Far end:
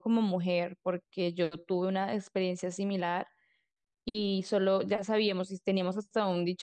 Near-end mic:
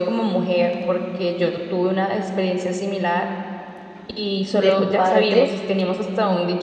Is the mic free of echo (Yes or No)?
No